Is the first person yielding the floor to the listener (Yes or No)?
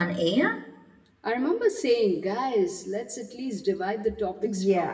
Yes